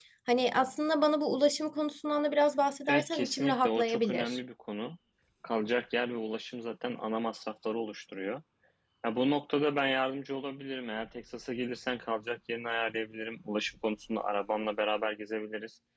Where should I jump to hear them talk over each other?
3 s

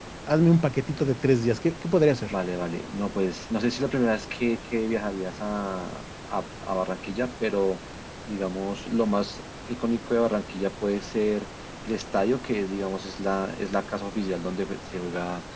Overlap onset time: none

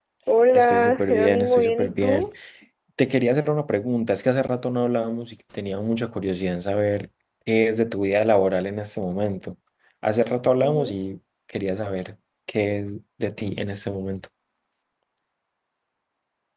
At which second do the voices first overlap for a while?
1 s

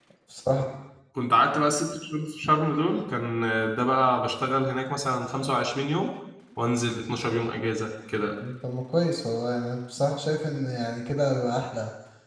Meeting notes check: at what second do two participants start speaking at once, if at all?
none

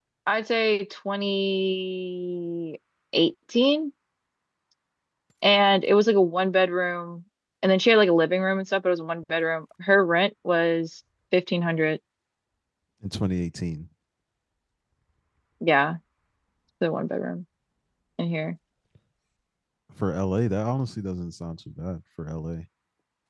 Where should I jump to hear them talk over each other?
none

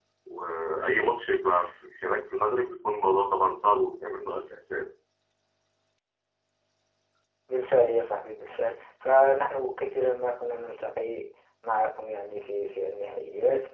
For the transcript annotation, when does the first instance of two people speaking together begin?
none

